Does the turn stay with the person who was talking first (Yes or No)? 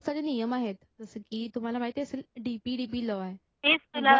No